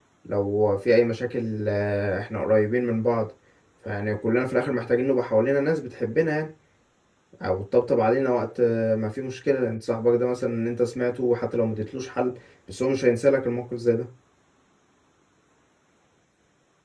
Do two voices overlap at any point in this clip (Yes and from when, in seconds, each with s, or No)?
No